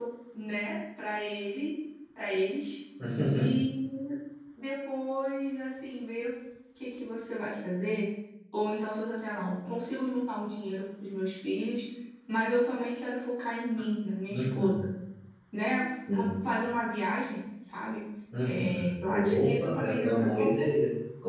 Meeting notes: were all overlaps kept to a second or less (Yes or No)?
No